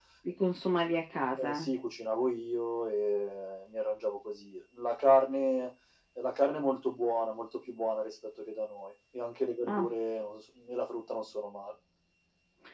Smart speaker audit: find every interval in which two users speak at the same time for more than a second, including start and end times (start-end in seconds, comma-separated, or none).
none